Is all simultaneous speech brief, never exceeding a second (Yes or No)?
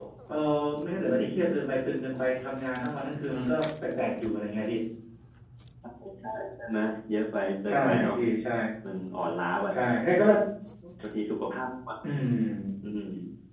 Yes